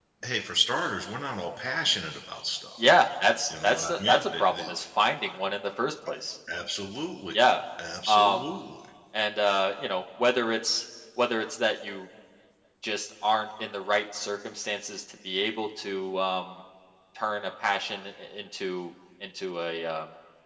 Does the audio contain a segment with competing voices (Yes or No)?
Yes